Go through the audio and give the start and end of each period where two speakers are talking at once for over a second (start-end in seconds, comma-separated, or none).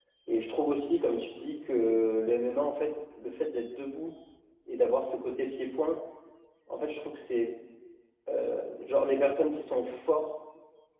none